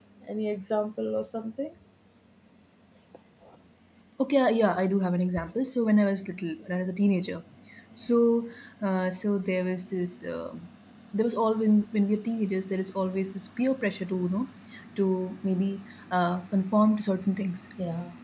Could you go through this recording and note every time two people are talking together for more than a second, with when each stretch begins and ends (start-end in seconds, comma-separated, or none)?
none